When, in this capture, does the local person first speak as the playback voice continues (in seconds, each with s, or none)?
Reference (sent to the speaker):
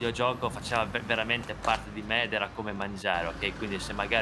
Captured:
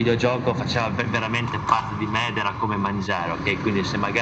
none